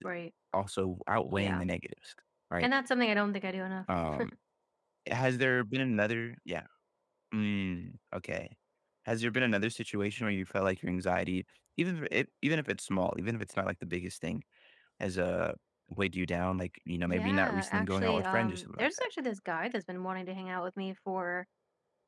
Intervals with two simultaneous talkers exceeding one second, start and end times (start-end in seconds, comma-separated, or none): 17.1-19.1